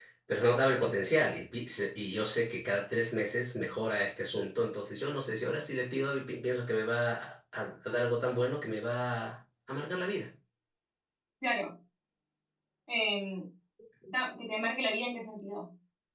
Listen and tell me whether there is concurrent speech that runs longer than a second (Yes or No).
No